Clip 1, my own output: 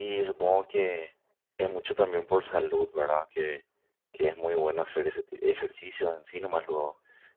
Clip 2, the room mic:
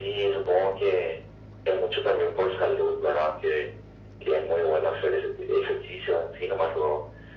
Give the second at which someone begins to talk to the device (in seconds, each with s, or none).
none